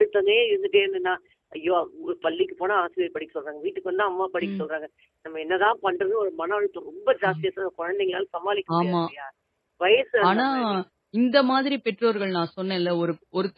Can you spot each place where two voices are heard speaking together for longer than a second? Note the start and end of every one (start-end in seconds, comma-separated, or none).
none